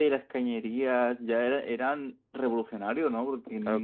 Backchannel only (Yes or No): No